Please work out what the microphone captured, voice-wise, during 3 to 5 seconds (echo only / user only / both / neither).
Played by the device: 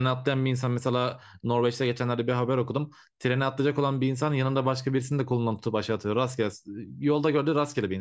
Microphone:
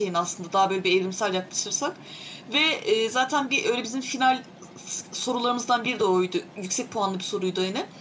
user only